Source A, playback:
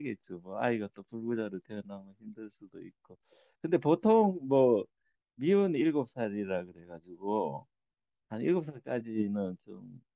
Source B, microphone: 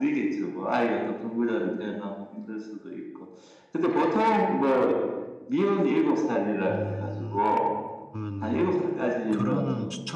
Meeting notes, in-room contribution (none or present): present